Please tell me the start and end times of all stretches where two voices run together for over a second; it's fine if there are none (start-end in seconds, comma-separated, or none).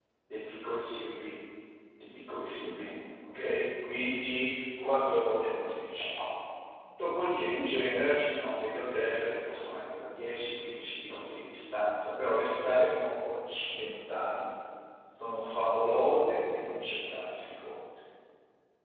4.8-6.2